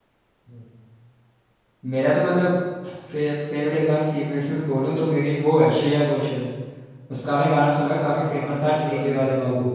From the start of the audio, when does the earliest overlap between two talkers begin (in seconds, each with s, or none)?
7.9 s